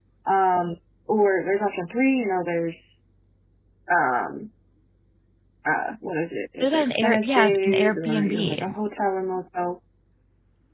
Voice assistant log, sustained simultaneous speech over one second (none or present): present